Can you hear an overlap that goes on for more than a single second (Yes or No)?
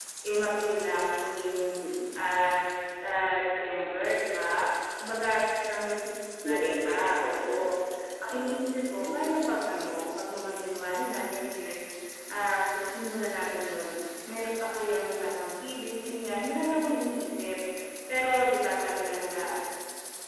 Yes